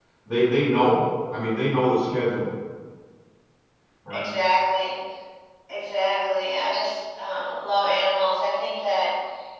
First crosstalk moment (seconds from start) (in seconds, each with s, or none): none